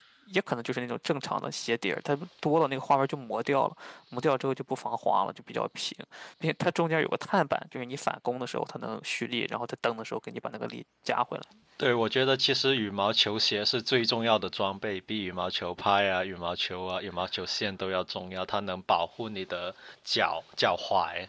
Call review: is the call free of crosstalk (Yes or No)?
Yes